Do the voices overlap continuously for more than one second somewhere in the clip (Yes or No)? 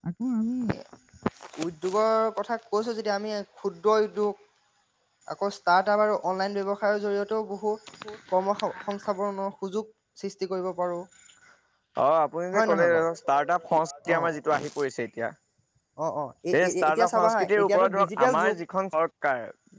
Yes